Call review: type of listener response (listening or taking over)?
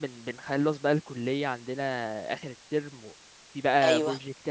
listening